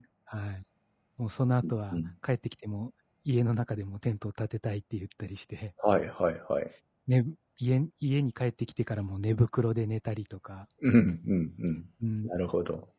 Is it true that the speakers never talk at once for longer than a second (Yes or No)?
Yes